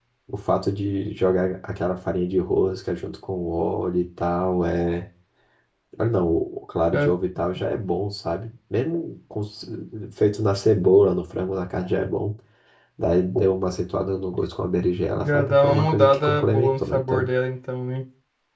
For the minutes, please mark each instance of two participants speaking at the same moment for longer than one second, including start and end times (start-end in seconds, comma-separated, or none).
15.2-17.3